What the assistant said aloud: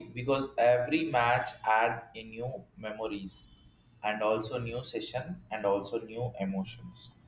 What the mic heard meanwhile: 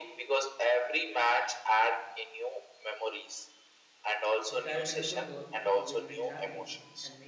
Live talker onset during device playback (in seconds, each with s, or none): 4.5 s